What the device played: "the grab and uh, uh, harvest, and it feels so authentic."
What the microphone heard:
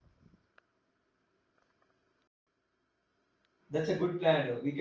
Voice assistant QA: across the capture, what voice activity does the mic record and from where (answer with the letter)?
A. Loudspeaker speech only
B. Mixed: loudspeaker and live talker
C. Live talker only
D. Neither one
C